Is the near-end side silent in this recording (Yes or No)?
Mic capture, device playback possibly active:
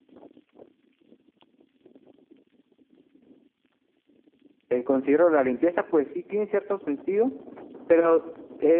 No